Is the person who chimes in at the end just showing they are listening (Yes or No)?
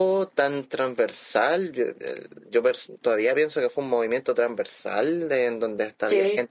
Yes